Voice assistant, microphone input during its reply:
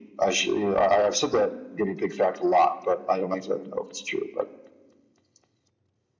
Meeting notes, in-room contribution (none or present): none